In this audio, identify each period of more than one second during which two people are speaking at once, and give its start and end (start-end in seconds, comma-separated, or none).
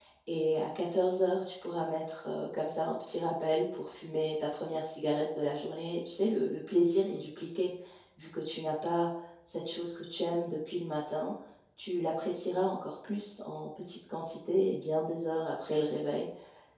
none